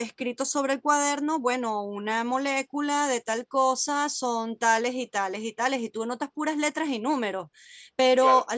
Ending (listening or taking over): listening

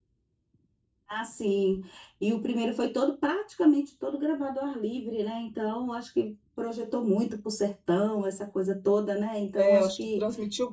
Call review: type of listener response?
taking over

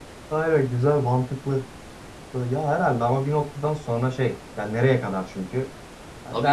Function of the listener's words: listening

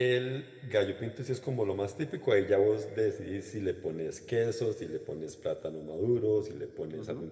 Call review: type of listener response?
taking over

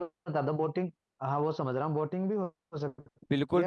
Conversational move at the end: taking over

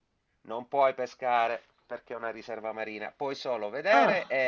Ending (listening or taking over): listening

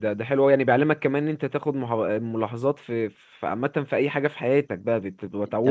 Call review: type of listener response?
taking over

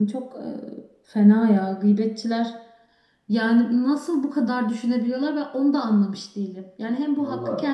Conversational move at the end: listening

